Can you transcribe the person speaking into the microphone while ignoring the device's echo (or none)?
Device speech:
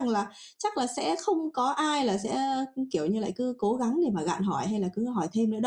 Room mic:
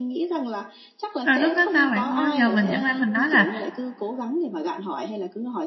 Rồi lúc đó sao bạn ơi? Giờ mình chẳng lẽ mình nói là